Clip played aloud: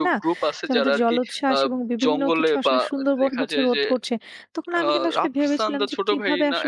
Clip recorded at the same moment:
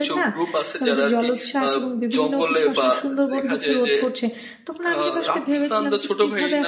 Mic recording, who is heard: echo only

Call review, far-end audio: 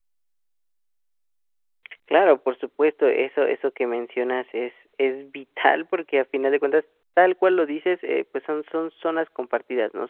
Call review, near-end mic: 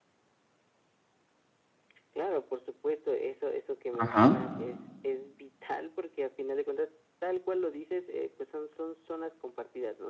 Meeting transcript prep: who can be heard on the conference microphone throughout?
both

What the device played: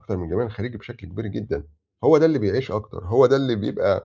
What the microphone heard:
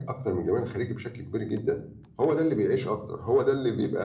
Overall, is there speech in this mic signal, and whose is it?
echo only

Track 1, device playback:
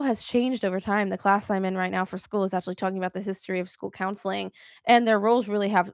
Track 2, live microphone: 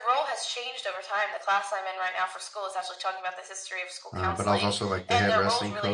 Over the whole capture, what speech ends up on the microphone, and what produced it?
both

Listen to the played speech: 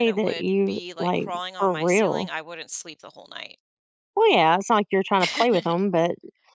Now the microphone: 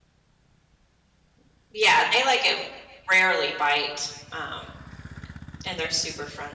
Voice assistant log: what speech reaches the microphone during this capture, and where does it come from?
user only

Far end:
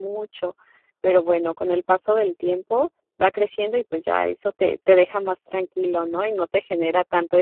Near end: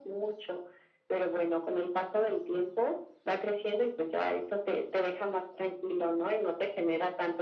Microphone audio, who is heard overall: echo only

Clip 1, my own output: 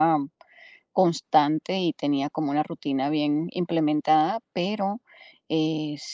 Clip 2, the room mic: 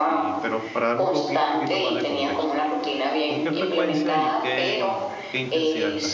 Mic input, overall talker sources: both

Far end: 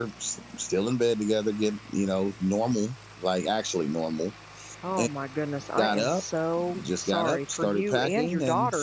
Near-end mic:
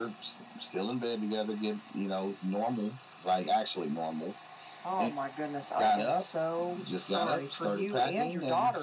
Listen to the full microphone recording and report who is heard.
echo only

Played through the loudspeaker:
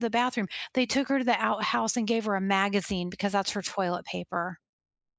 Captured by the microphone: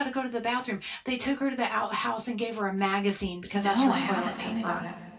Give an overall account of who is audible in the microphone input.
both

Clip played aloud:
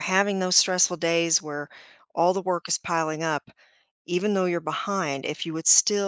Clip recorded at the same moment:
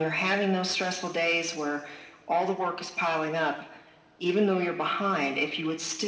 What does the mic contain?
echo only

